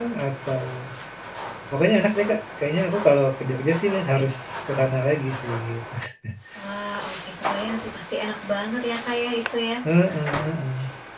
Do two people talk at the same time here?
No

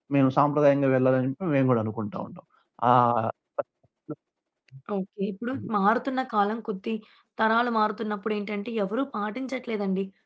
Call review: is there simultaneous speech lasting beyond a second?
No

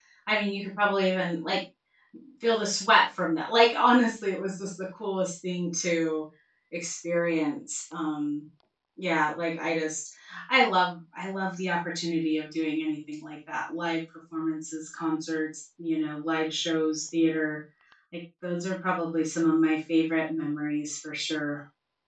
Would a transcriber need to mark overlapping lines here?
No

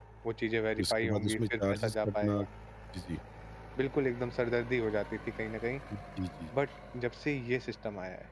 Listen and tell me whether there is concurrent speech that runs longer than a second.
Yes, from 0.8 s

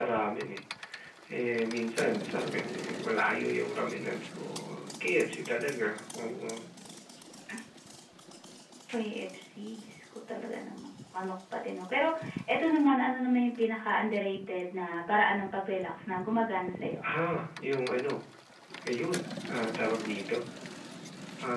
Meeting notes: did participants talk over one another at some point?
No

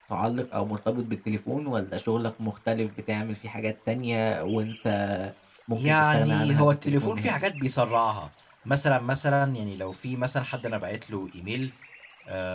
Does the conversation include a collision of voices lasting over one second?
Yes, from 5.7 s

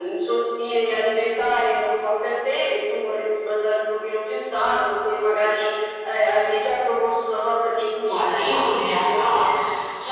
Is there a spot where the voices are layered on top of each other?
Yes, from 8.1 s

